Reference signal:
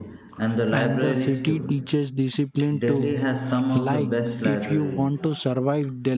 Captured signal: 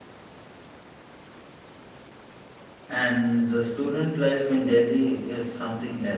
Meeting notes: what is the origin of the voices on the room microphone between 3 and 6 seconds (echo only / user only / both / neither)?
user only